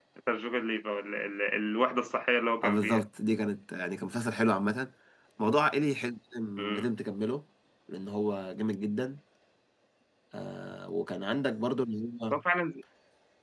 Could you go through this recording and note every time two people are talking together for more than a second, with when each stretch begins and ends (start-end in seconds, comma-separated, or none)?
none